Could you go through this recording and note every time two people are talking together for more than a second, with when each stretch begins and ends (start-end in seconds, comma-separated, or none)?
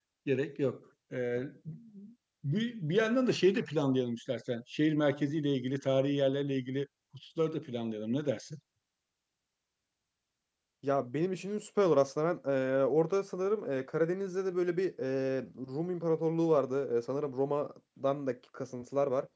none